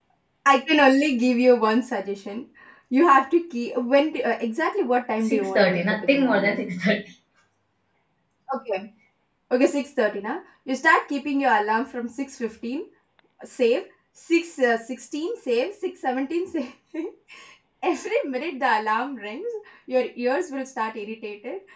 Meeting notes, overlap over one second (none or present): present